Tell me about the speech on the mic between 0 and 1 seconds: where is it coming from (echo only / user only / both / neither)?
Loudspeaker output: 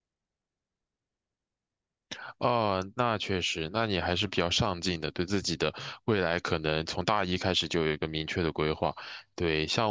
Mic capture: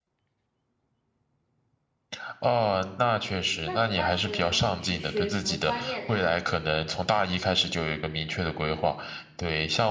neither